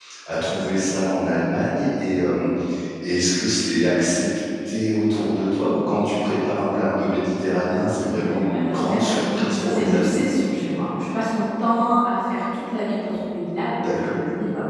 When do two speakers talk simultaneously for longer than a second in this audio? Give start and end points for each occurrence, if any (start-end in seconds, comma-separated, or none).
8.5-10.2